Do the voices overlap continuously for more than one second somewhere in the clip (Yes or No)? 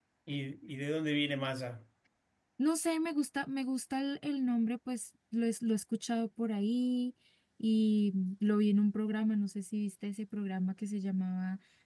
No